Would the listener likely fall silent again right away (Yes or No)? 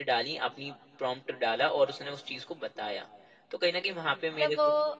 No